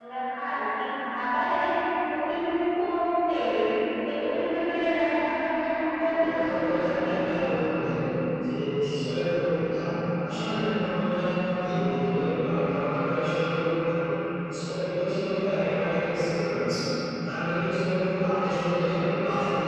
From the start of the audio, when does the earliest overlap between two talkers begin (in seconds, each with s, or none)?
6.0 s